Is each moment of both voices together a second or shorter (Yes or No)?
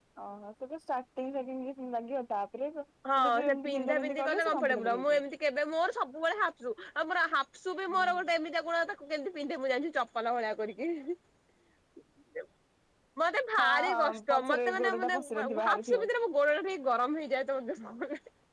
No